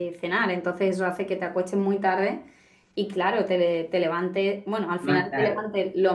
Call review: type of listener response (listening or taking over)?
listening